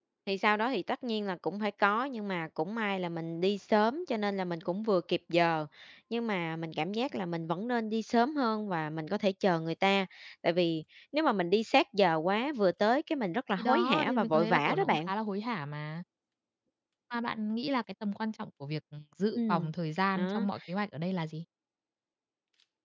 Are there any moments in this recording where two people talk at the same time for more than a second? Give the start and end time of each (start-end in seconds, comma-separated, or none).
13.6-15.1